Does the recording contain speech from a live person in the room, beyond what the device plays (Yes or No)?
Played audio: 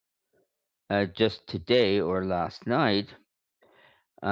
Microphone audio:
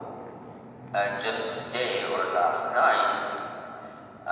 No